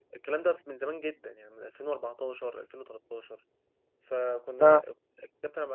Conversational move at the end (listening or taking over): listening